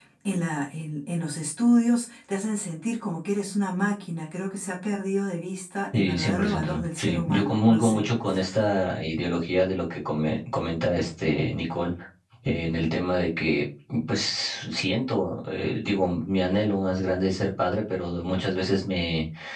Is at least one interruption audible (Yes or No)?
Yes